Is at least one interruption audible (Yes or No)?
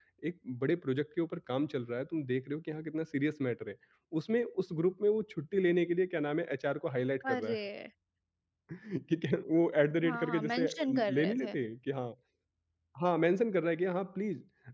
Yes